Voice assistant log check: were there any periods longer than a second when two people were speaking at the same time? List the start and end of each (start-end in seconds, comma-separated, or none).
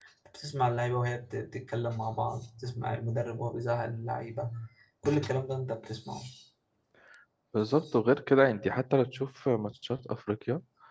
none